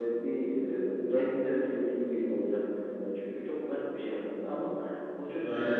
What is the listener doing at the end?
listening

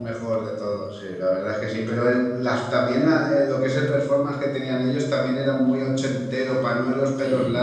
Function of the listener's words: listening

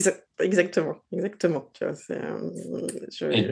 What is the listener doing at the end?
taking over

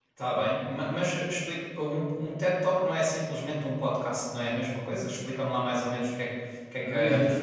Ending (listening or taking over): taking over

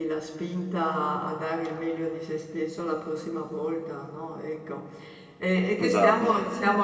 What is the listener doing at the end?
listening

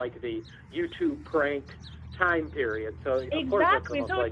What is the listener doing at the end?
taking over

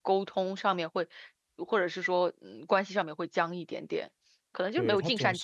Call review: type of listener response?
taking over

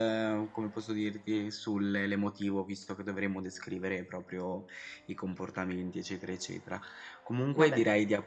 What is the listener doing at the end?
listening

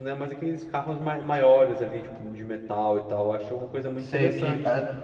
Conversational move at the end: taking over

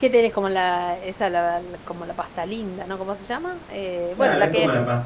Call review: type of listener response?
taking over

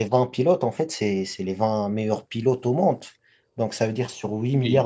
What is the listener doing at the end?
listening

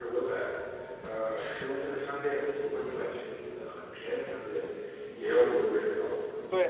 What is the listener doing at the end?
taking over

